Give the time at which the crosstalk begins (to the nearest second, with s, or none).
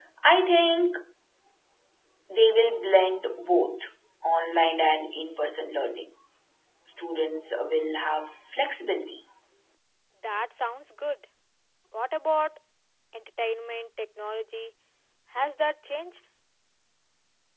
none